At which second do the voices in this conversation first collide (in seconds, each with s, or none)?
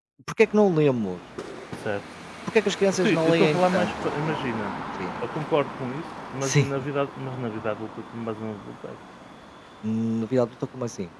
3.0 s